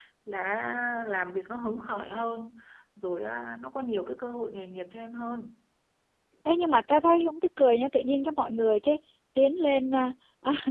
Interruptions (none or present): none